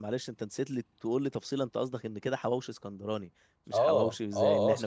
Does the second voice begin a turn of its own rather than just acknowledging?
Yes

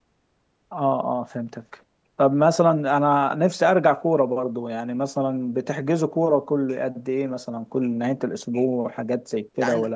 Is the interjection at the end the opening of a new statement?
Yes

